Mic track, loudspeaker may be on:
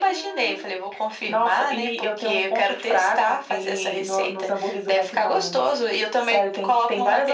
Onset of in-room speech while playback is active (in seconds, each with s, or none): none